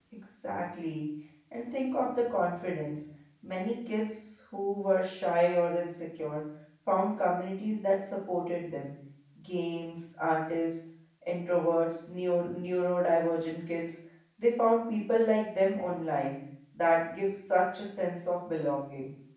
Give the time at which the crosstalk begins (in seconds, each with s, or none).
none